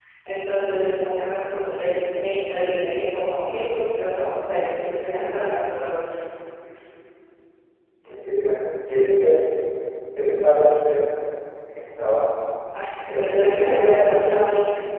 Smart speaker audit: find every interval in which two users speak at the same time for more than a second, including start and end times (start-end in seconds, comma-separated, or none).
13.1-14.4